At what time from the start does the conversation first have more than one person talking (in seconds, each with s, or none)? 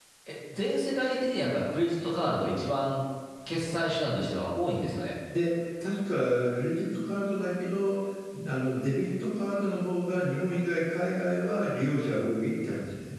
none